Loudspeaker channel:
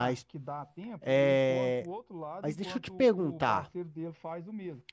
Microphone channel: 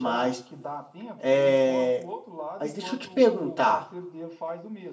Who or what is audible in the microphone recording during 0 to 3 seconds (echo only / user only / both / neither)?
echo only